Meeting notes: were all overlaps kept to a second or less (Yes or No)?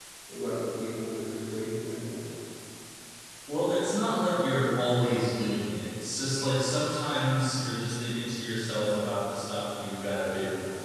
Yes